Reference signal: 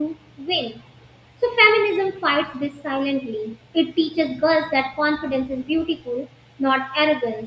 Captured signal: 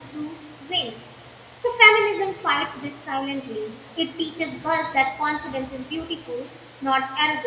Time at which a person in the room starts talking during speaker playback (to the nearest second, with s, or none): none